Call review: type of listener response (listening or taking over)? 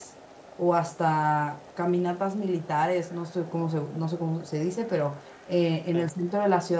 listening